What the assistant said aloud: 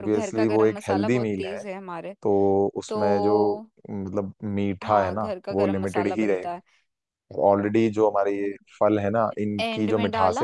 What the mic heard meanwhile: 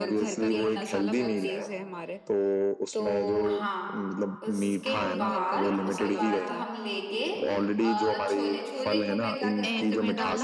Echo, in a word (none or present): present